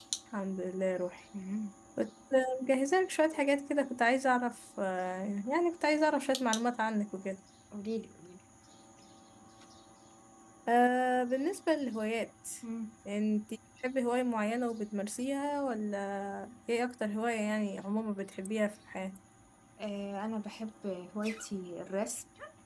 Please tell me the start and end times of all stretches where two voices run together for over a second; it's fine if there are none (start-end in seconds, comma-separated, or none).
none